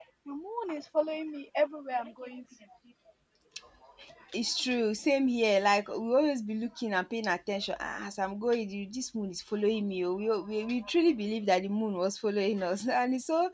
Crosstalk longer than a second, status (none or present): none